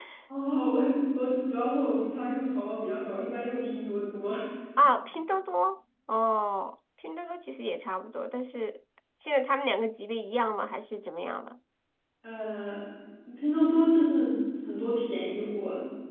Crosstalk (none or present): none